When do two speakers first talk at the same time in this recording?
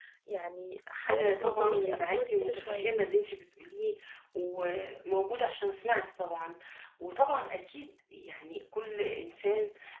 1.1 s

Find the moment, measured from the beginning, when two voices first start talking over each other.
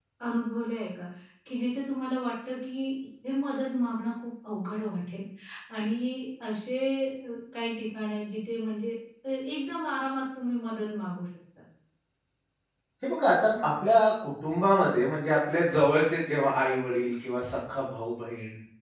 none

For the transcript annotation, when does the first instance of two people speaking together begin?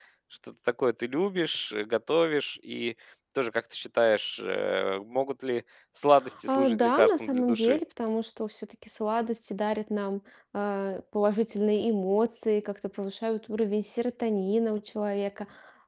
6.5 s

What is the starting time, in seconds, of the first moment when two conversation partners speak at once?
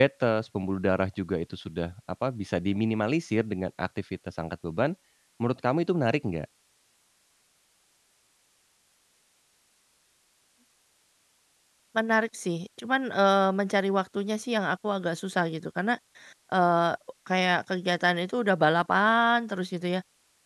none

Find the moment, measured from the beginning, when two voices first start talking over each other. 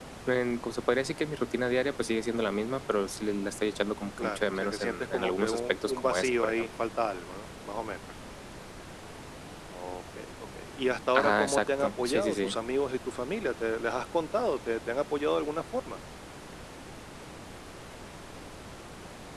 4.2 s

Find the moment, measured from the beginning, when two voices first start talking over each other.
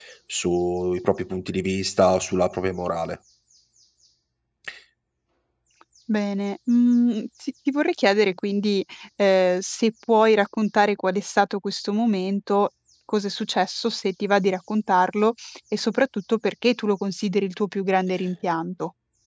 none

